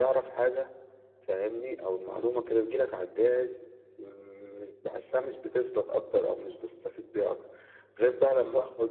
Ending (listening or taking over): listening